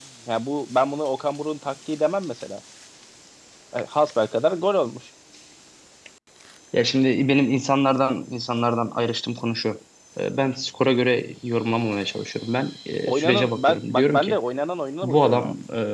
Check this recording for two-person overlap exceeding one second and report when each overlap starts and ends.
13.1-14.4

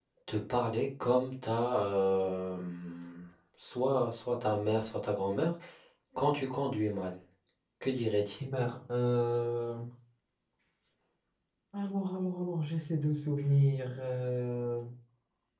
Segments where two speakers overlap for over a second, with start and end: none

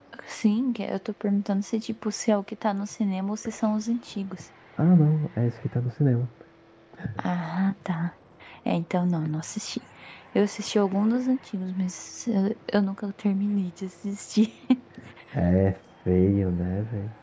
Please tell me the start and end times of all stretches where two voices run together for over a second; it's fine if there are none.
none

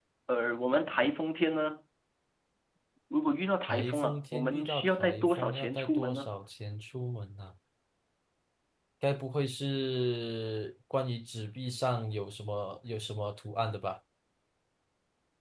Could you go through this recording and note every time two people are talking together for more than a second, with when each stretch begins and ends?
3.7-6.3

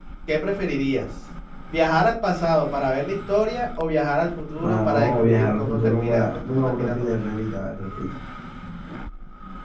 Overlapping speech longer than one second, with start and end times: 4.5-7.1

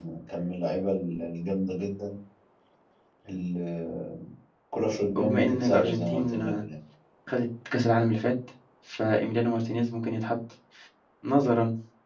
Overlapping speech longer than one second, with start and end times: 5.2-6.6

